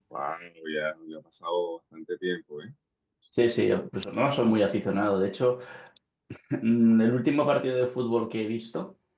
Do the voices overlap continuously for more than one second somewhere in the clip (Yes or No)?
No